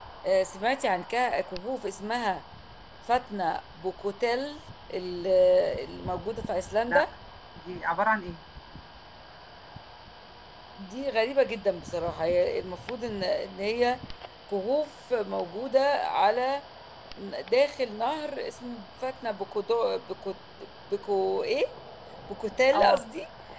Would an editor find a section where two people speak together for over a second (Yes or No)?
No